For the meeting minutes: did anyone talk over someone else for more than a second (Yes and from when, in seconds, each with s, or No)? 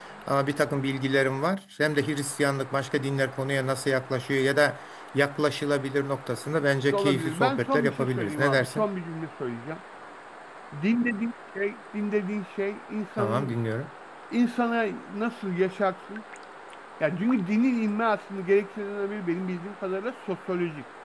Yes, from 6.9 s